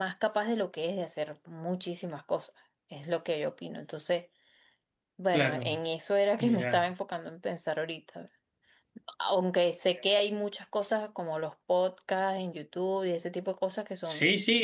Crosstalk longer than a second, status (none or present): none